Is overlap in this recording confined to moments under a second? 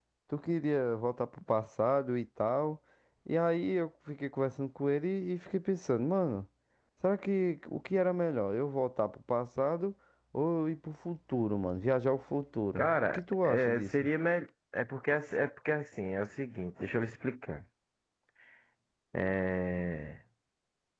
No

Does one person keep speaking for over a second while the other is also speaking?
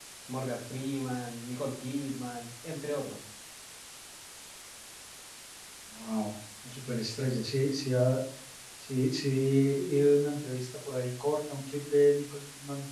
No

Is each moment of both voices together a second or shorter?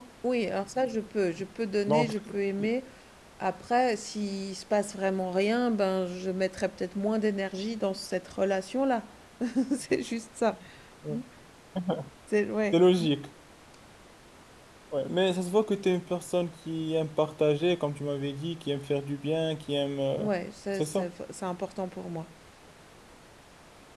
Yes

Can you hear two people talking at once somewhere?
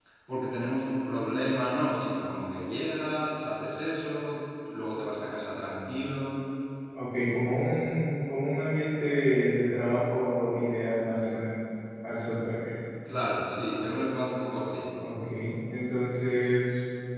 No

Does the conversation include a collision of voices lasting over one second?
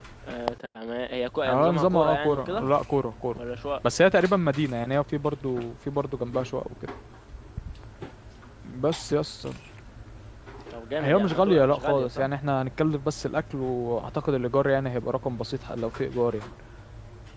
Yes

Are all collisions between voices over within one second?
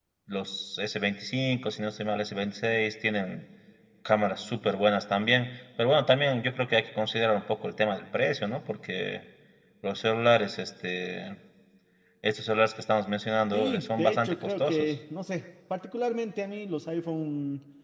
No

